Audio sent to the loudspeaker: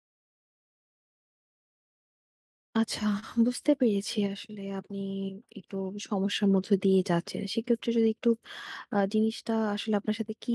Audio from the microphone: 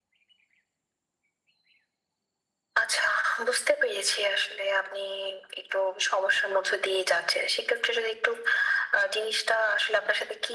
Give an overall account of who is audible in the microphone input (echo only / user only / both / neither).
echo only